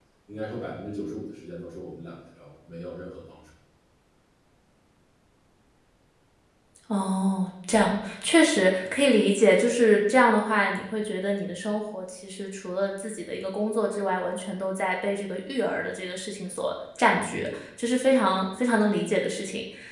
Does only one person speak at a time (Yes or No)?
Yes